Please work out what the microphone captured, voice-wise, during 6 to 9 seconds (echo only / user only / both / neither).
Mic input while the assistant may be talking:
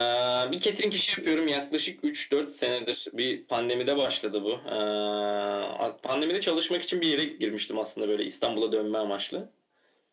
echo only